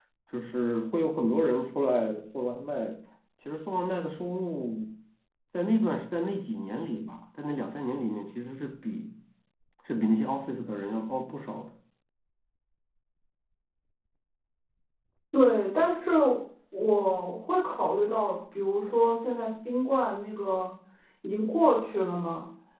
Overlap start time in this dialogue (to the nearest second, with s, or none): none